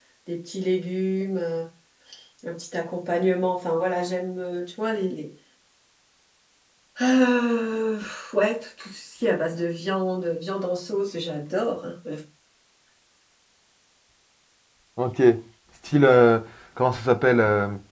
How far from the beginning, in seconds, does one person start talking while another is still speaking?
none

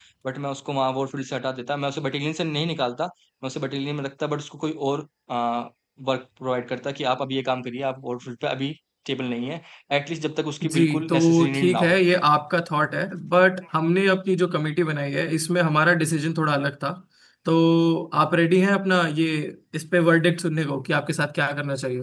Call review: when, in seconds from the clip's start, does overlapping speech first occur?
10.7 s

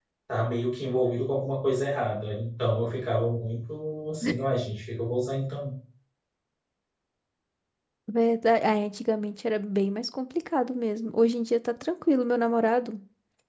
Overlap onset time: none

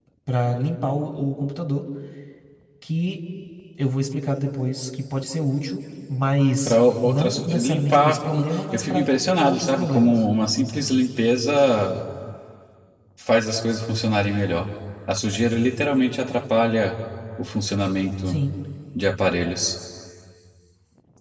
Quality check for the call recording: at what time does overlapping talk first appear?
6.7 s

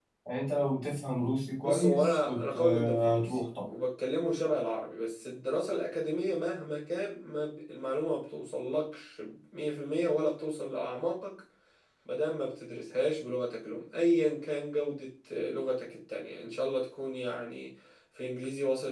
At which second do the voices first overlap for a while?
1.6 s

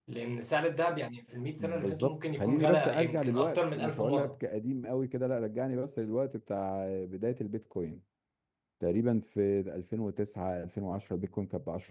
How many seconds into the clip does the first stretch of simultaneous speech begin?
1.6 s

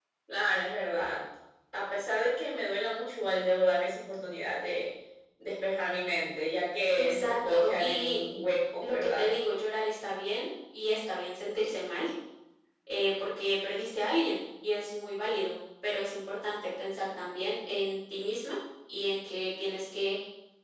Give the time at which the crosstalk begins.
6.9 s

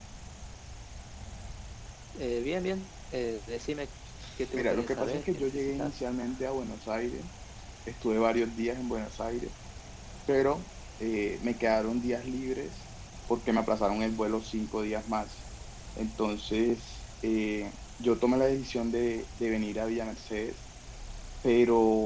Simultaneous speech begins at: 4.5 s

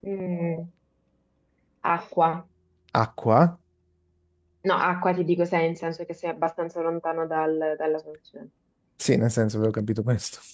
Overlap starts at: none

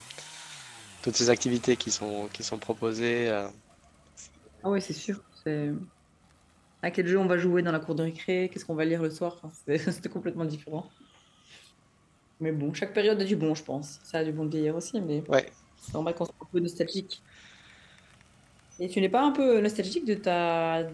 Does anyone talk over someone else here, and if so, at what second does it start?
none

